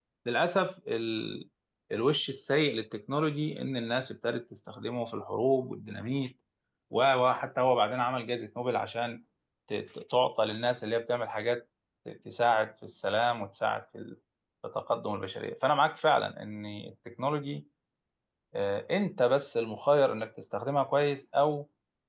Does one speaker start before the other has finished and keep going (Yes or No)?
No